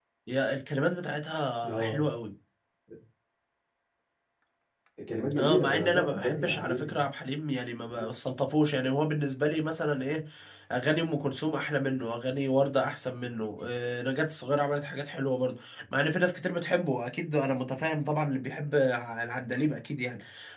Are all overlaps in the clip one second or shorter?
No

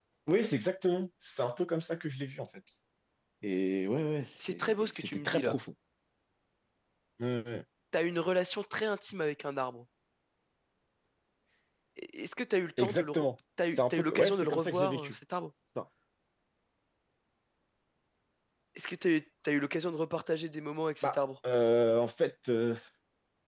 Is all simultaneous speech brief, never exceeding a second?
No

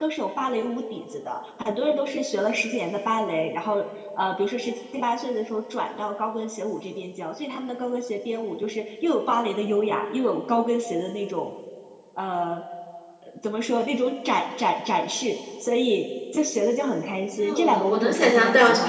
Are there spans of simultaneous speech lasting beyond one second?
Yes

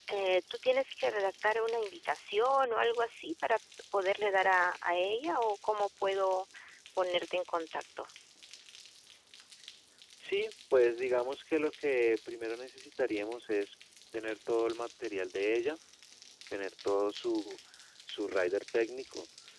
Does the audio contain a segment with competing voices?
No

